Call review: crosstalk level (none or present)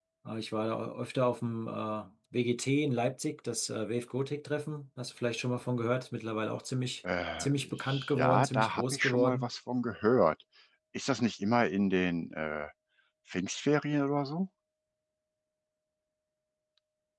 present